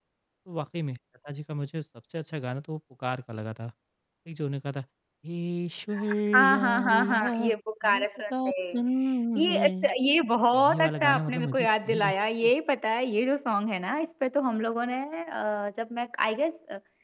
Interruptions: present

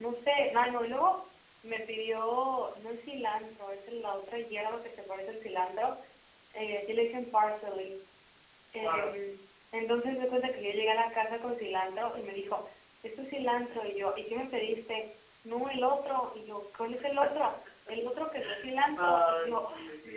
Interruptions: present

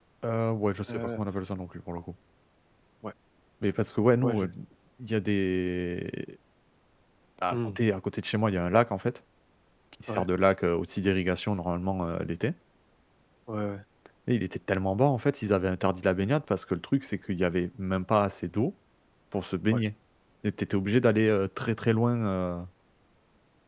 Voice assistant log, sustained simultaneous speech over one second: none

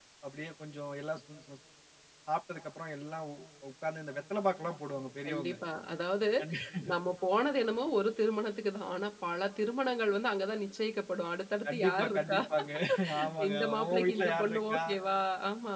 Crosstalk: present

